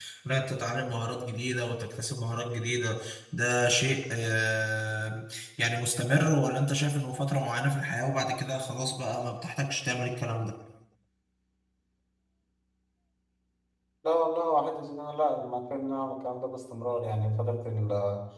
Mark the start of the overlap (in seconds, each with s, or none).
none